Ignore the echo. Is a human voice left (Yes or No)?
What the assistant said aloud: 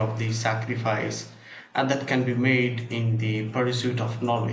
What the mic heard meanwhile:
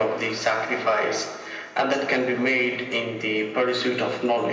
No